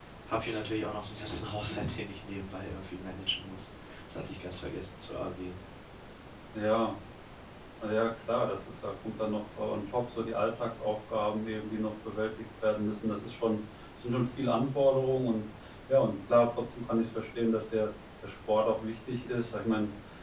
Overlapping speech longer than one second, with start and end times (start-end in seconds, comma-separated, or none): none